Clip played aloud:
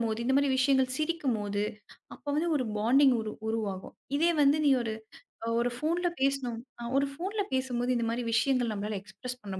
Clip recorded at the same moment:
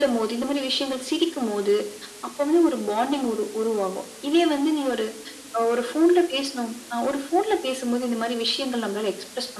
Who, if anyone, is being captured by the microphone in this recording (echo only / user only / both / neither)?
echo only